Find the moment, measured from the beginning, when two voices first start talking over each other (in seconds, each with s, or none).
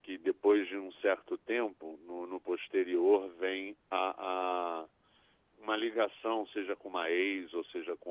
none